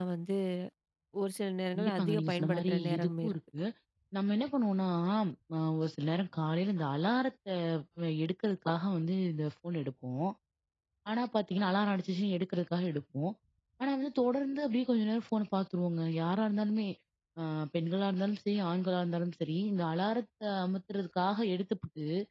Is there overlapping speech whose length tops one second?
Yes, from 1.8 s

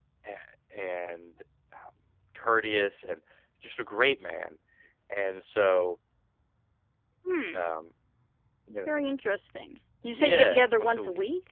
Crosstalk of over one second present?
Yes, from 10.1 s

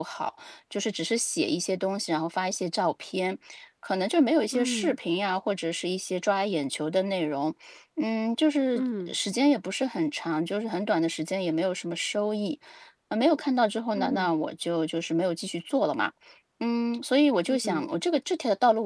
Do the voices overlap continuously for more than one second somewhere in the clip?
No

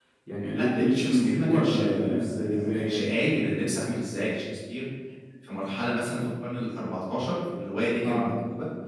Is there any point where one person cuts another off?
Yes, from 0.5 s

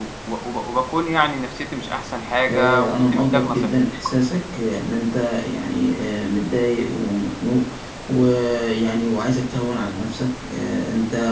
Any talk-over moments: Yes, from 2.5 s

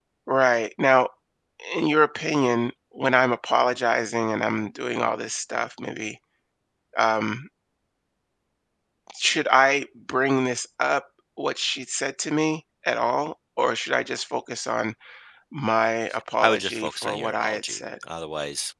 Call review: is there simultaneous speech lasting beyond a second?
Yes, from 16.4 s

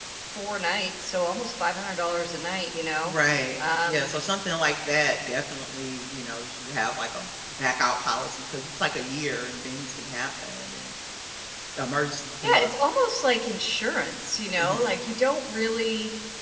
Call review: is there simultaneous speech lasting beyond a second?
No

